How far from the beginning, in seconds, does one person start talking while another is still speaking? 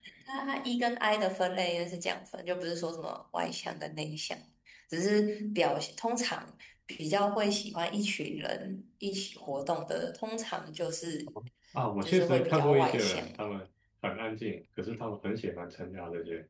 12.0 s

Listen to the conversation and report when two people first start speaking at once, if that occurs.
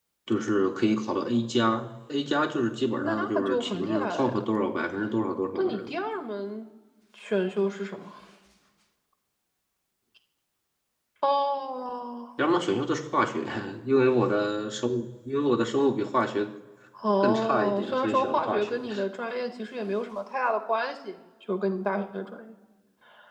3.0 s

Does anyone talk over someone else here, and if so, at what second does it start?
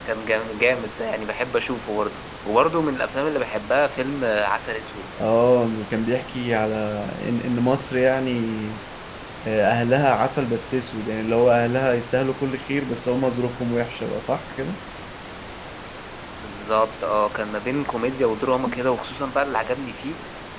none

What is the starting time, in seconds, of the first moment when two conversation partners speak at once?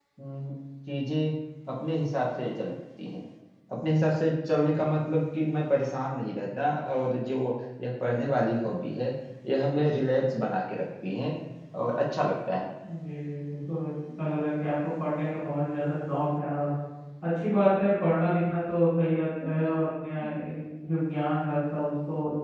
none

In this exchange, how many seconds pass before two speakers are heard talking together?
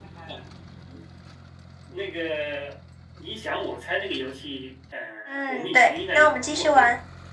5.3 s

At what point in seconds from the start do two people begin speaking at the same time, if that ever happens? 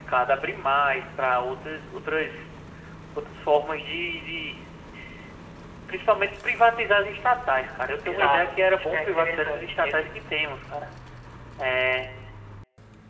8.1 s

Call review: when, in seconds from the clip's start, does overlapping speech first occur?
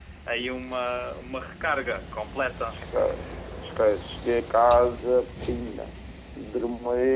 none

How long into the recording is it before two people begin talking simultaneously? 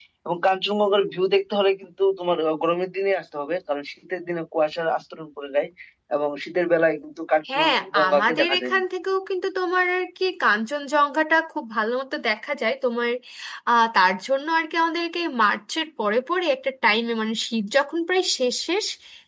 7.5 s

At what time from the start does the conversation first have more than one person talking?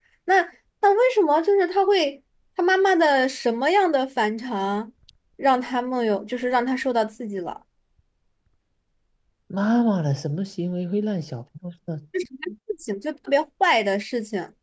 none

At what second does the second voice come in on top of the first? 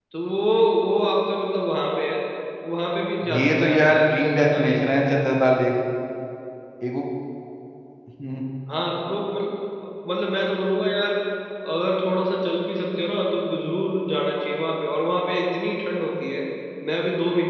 3.3 s

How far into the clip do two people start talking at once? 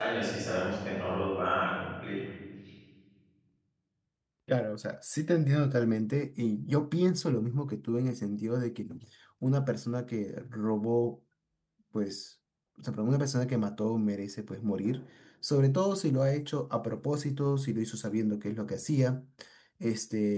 none

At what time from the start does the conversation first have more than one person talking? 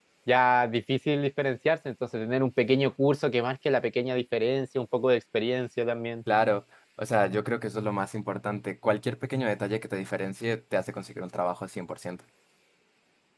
none

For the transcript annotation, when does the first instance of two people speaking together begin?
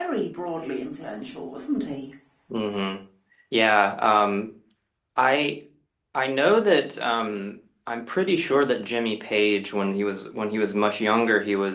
none

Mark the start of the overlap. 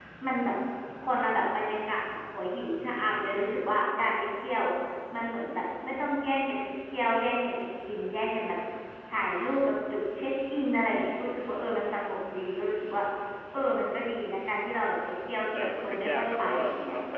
15.6 s

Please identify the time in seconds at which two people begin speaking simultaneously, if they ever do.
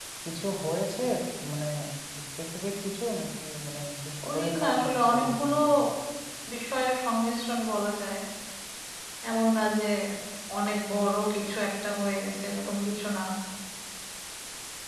4.2 s

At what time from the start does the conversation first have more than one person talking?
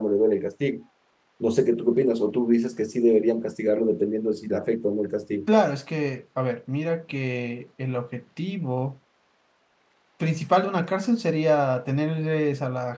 none

